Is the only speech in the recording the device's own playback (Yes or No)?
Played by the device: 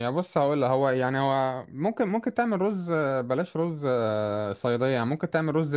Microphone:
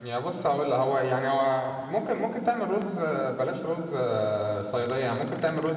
Yes